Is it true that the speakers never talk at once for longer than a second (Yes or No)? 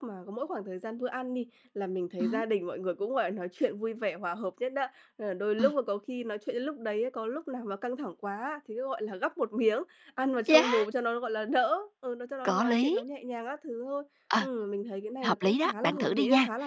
No